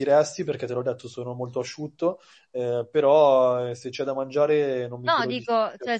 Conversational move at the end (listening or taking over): taking over